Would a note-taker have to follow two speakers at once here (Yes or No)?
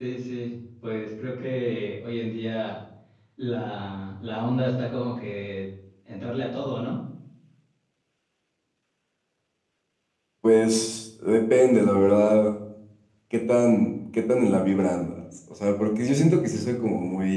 No